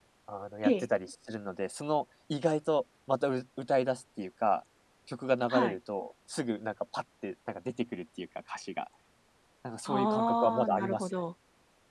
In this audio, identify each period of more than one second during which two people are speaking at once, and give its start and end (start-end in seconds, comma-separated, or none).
9.9-11.1